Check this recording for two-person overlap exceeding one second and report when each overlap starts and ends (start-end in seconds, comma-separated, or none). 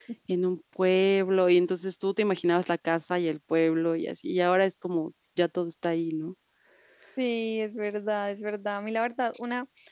none